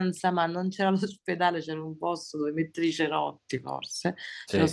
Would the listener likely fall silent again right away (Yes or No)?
Yes